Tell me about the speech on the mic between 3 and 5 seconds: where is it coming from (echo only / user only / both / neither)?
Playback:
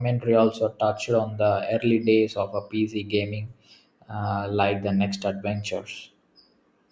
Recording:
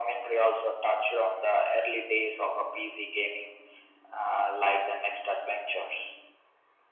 echo only